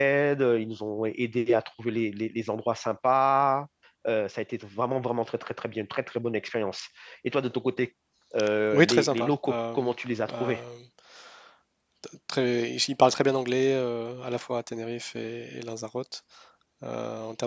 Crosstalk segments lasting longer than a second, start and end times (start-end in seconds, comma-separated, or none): 8.7-9.9